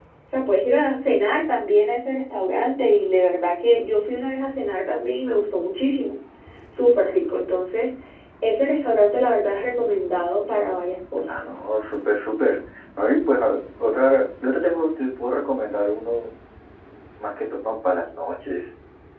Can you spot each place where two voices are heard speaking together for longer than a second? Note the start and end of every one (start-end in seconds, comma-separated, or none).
none